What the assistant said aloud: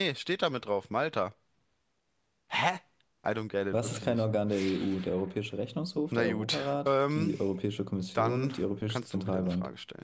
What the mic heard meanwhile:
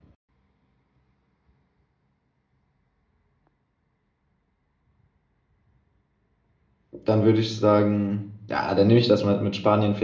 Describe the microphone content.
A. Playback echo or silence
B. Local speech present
B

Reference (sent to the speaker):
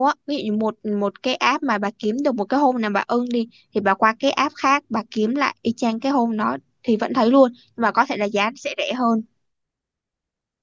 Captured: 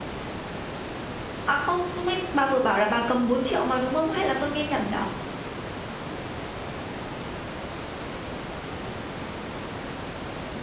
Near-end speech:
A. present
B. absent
A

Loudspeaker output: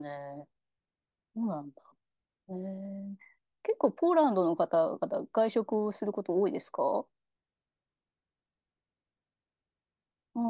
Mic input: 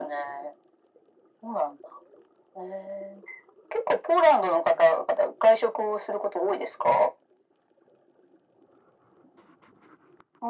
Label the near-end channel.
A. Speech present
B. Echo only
B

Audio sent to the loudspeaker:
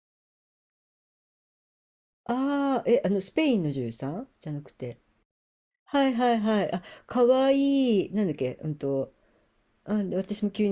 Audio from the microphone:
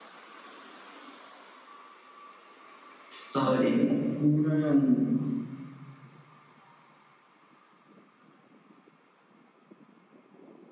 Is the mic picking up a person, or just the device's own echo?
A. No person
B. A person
B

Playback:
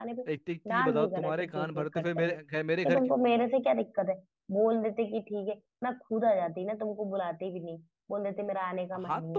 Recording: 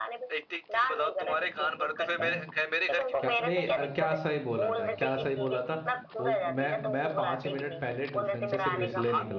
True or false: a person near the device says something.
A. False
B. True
B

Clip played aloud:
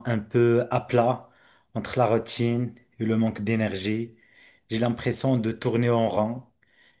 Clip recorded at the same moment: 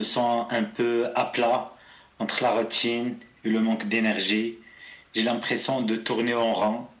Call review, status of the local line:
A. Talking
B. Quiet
B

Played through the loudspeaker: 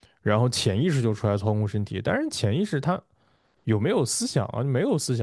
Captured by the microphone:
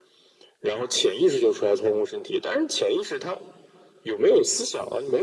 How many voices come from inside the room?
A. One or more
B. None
B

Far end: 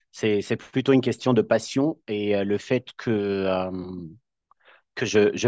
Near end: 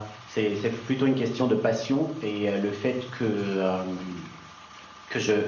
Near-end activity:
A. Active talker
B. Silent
B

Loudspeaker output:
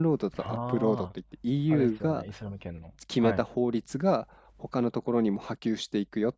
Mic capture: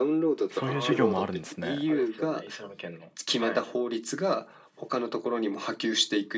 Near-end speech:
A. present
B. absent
A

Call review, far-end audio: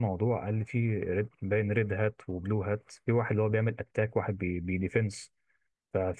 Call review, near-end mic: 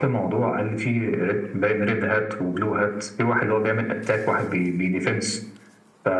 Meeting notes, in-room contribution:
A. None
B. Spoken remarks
A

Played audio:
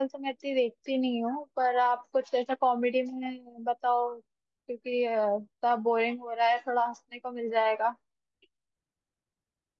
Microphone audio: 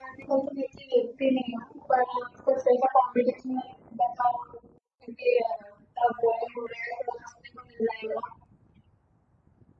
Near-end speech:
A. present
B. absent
B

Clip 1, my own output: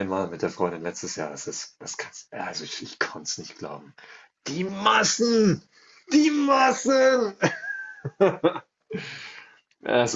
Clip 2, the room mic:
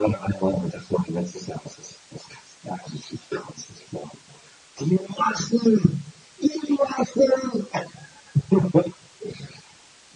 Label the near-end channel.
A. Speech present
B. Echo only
B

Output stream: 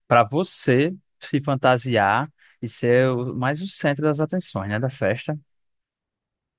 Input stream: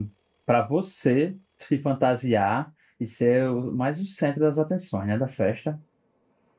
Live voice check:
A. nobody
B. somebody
A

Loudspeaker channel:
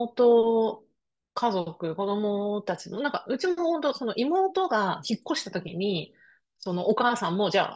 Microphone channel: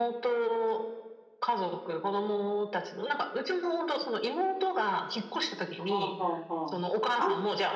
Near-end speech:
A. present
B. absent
A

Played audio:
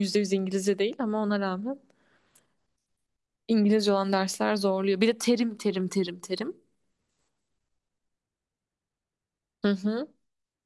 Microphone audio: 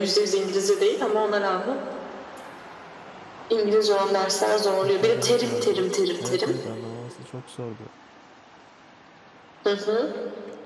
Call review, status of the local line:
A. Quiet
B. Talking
B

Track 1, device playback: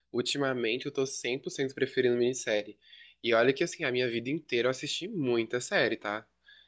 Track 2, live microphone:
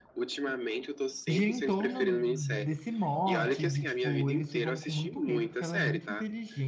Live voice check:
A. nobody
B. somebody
B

